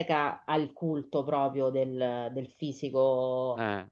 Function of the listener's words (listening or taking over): listening